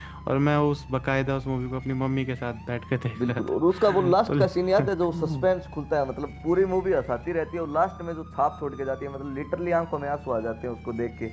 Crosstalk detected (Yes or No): Yes